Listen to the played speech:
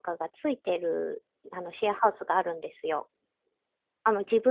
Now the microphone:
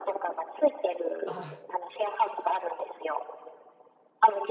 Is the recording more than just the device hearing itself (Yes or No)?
Yes